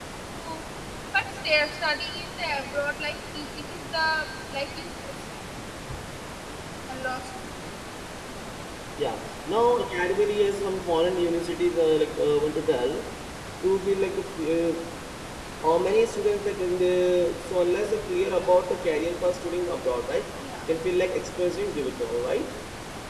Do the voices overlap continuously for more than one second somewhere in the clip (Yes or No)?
No